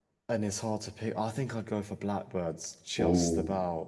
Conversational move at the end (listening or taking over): taking over